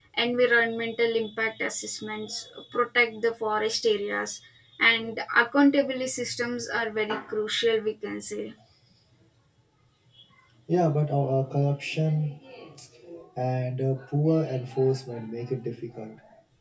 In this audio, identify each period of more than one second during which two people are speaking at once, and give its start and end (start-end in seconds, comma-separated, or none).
none